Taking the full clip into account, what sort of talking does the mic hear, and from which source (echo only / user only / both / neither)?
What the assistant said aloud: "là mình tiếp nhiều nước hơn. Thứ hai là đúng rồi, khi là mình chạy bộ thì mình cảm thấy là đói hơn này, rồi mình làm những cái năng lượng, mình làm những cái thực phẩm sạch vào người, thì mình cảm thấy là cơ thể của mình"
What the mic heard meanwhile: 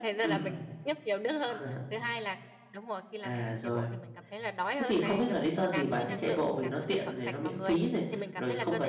both